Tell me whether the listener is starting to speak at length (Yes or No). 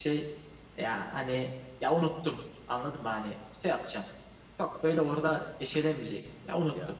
No